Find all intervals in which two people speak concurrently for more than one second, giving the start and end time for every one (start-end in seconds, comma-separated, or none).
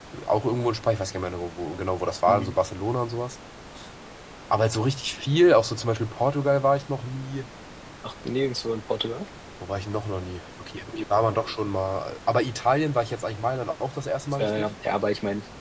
none